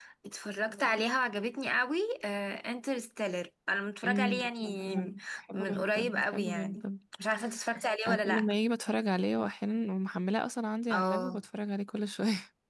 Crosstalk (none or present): present